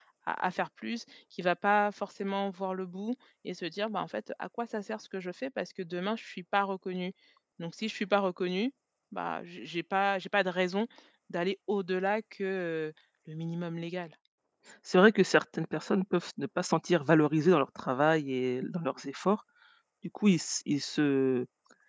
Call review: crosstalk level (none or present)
none